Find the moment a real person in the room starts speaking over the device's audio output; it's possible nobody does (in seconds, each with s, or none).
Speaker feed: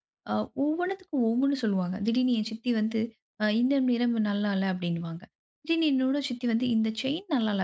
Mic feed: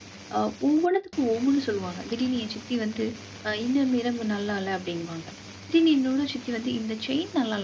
none